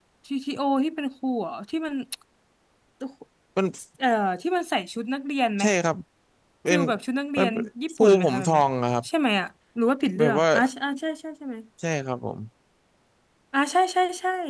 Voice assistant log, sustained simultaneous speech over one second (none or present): present